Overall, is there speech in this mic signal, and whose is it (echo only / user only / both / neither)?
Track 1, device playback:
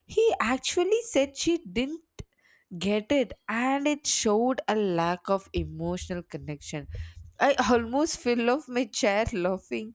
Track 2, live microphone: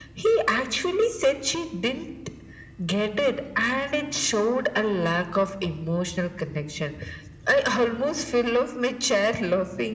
echo only